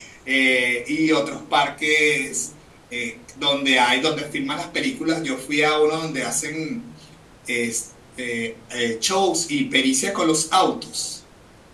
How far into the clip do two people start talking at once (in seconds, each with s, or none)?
none